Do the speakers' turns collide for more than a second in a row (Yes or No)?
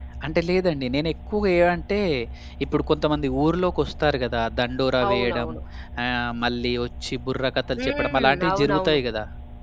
Yes